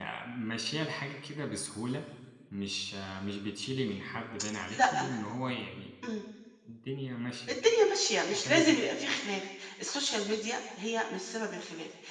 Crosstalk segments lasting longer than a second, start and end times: none

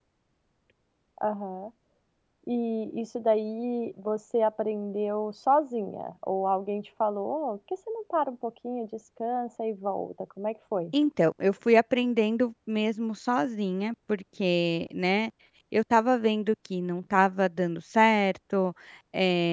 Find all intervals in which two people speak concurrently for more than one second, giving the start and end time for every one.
none

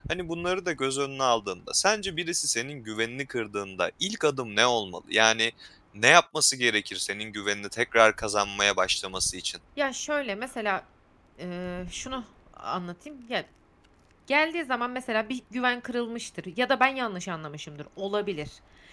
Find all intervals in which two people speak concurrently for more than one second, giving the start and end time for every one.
none

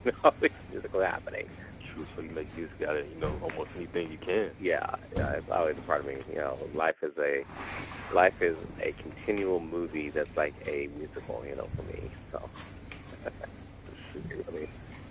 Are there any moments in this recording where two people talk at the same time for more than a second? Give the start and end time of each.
none

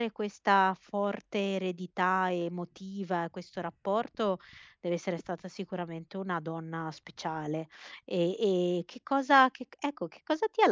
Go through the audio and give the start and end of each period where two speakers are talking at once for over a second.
none

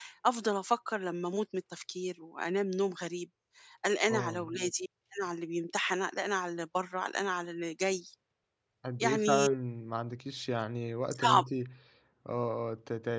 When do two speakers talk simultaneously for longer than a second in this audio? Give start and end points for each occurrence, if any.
none

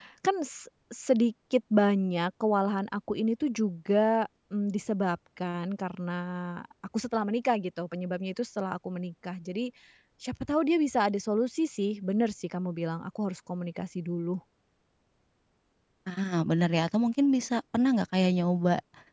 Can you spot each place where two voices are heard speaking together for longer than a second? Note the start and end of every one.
none

